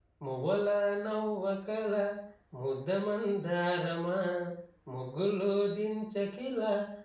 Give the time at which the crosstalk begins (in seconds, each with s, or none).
none